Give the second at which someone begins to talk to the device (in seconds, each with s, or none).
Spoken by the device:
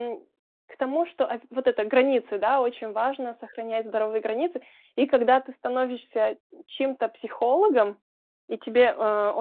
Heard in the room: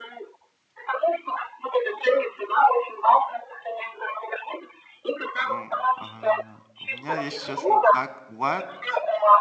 5.4 s